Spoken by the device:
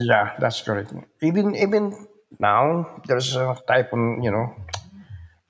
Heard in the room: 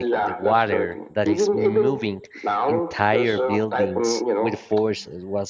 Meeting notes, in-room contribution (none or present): present